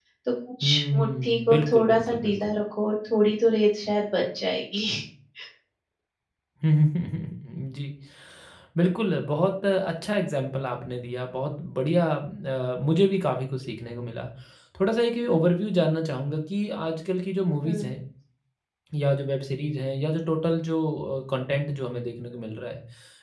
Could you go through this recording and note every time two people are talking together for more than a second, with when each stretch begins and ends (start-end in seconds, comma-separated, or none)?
0.6-2.5